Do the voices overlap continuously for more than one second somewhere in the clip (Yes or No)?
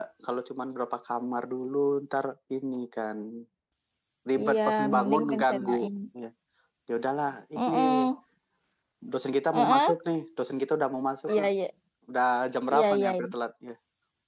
Yes